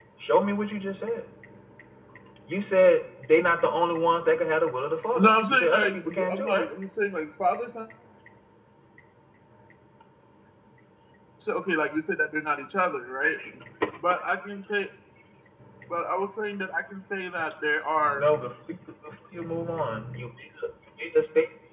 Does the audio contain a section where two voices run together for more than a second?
Yes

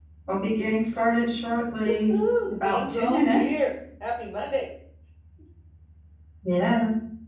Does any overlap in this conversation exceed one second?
Yes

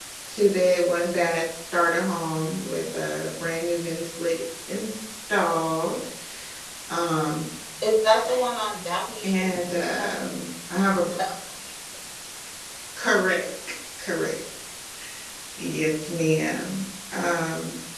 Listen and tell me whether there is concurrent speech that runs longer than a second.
No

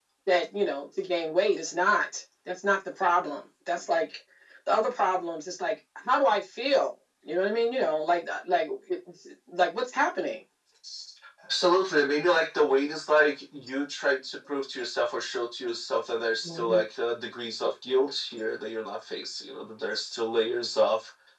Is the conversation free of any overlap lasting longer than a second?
Yes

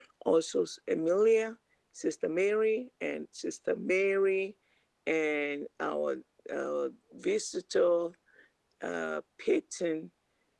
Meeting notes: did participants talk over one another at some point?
No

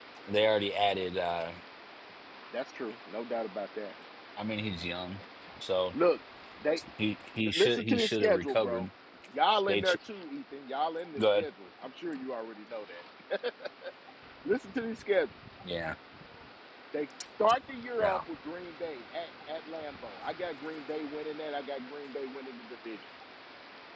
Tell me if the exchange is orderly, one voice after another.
No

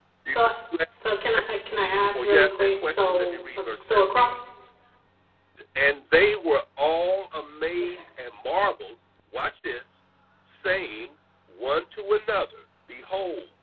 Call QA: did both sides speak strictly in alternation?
No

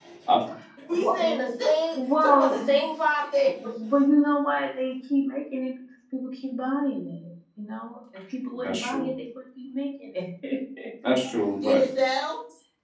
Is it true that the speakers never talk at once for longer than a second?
No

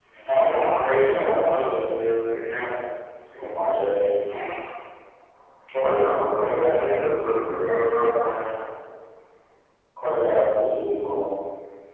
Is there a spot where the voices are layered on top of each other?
Yes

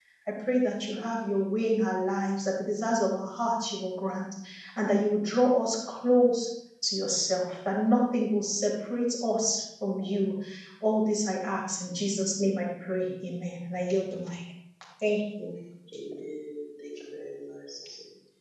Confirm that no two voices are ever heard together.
Yes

